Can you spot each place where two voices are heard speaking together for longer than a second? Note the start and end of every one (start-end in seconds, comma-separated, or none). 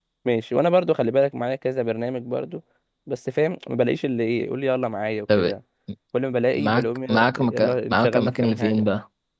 6.6-8.9